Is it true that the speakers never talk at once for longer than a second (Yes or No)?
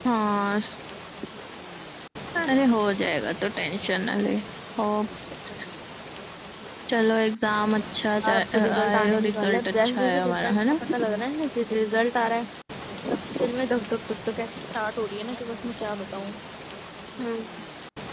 No